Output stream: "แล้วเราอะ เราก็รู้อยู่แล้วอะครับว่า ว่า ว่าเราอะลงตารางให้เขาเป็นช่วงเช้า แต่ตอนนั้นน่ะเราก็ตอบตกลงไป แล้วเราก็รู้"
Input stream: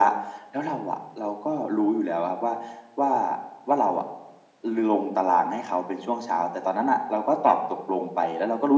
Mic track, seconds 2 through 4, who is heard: echo only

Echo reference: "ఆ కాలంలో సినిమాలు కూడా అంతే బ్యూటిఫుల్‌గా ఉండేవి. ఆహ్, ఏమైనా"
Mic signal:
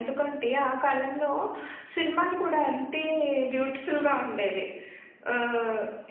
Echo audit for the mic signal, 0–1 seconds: echo only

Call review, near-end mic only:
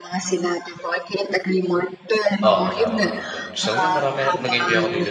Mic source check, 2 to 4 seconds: both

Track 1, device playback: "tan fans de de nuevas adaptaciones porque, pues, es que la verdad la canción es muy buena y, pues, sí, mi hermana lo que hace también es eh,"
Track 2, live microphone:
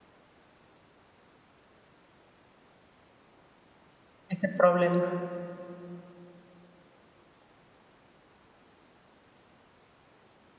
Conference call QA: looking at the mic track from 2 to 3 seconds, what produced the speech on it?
neither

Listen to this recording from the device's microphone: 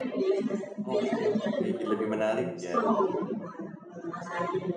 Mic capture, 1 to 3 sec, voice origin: both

